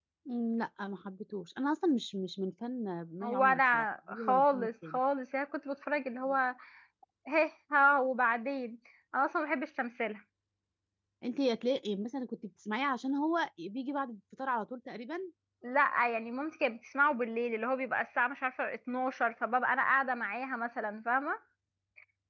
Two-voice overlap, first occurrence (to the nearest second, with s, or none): 3 s